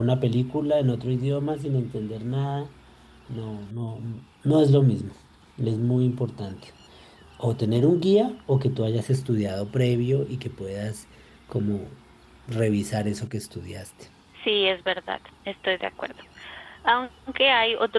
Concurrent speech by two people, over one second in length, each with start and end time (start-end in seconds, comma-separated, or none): none